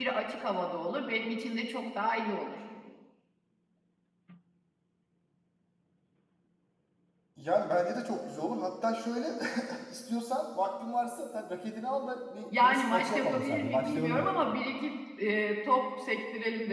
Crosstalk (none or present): present